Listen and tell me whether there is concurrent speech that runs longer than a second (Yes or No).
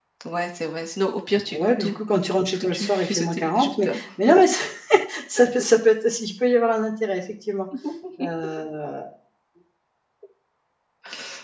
Yes